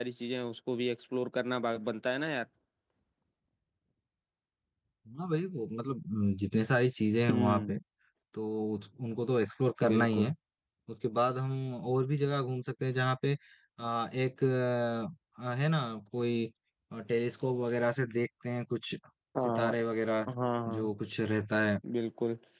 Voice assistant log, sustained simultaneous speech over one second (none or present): none